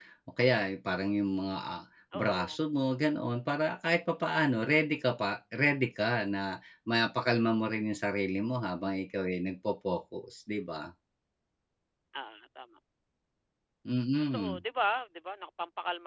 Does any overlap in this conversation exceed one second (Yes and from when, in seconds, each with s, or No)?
No